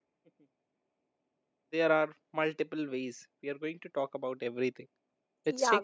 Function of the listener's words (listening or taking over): taking over